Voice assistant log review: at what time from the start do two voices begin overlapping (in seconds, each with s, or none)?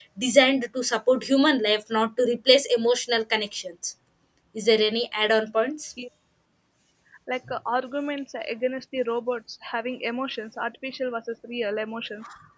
none